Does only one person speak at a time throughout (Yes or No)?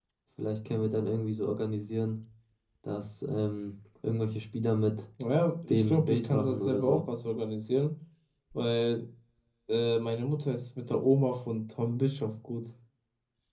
No